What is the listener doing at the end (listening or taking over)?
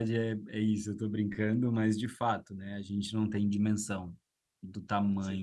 listening